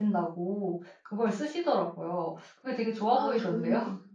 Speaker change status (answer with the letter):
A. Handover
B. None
A